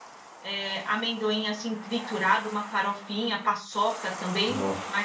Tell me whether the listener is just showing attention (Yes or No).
Yes